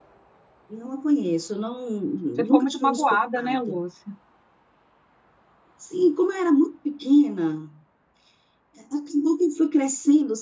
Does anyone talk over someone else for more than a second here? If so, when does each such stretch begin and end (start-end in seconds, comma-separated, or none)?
2.5-3.8